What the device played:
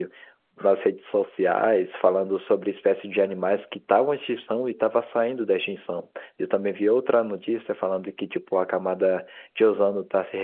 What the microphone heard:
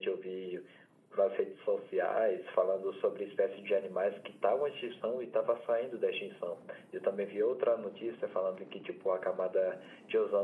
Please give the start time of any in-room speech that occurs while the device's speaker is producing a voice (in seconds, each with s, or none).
none